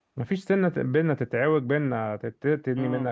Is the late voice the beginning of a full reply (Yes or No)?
No